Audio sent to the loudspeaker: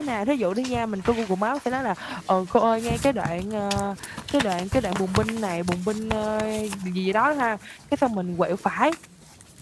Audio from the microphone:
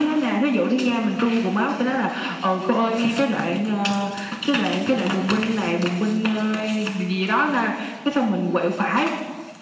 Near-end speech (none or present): none